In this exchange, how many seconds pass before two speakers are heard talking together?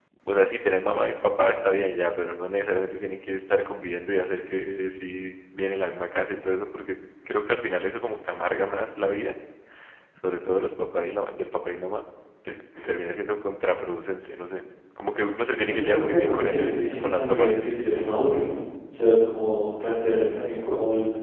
15.7 s

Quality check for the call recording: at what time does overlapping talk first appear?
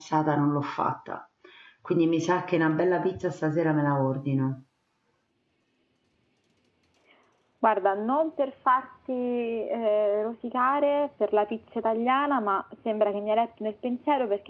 none

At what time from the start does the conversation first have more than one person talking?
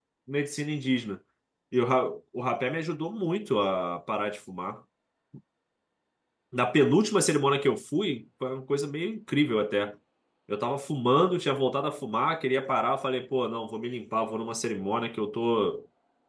none

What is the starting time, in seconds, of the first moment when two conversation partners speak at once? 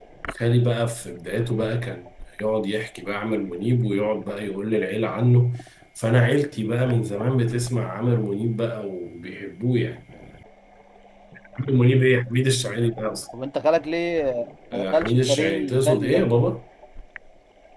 14.7 s

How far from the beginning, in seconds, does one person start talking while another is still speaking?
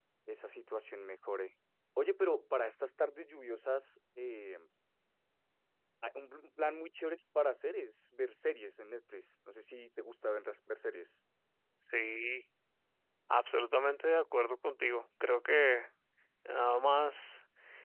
none

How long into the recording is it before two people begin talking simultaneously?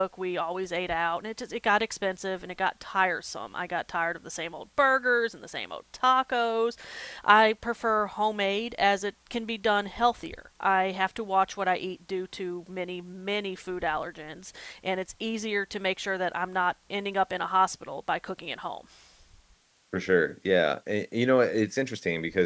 none

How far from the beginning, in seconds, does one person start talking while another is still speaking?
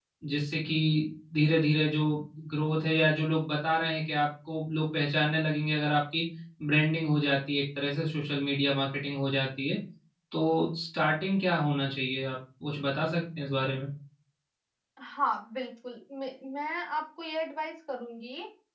none

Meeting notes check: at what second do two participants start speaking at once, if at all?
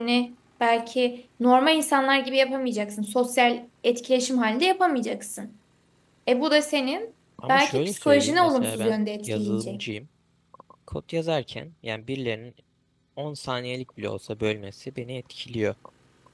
7.4 s

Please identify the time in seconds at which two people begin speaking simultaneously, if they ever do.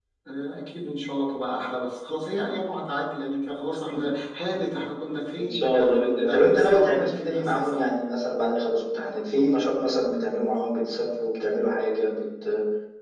5.4 s

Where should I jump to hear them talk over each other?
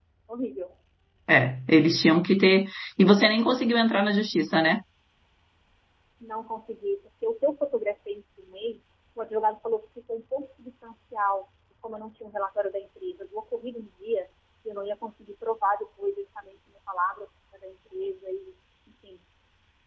none

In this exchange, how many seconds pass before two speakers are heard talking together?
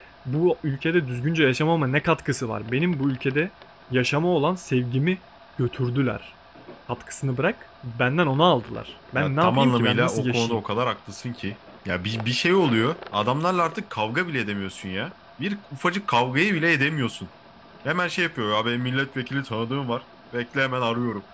9.2 s

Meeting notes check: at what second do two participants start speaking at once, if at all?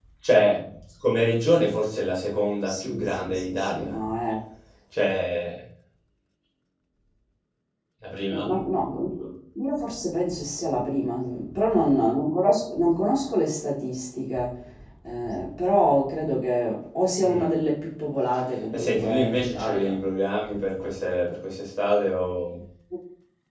2.6 s

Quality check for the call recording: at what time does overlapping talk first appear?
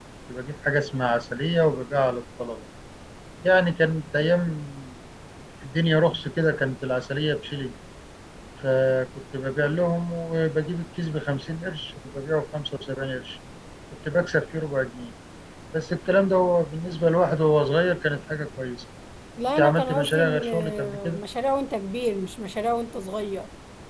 19.5 s

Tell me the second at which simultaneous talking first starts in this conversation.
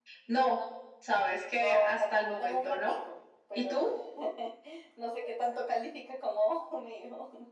1.5 s

